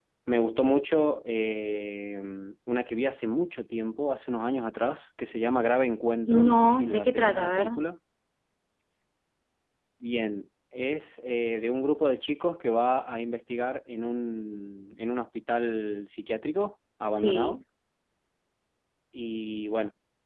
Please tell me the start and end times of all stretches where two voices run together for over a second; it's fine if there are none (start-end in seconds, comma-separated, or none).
6.5-7.7